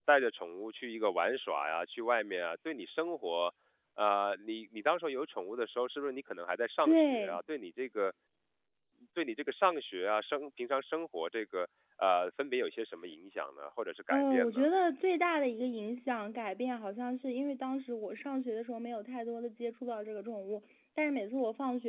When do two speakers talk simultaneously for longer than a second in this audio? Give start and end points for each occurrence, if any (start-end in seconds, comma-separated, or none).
none